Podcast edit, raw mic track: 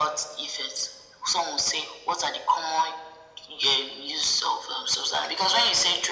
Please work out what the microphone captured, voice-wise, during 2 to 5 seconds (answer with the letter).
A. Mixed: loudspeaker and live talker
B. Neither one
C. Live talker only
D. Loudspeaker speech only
D